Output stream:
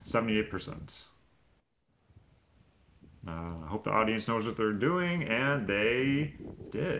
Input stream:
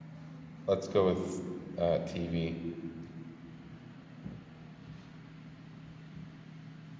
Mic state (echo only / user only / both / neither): user only